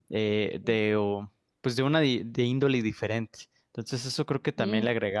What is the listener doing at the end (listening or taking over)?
listening